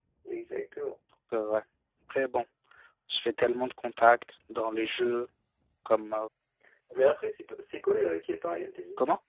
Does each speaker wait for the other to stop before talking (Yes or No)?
Yes